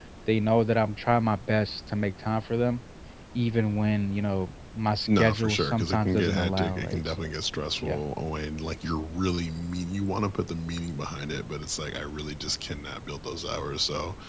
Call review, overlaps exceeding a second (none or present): present